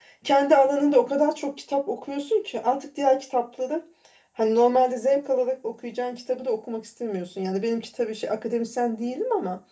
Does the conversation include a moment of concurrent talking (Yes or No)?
No